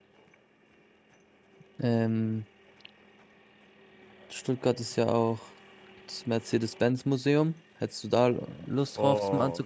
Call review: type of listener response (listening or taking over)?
taking over